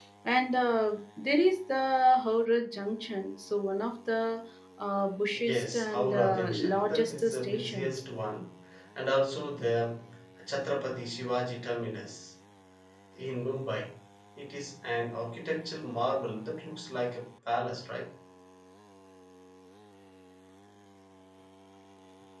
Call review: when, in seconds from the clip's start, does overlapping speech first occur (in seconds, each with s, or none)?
5.4 s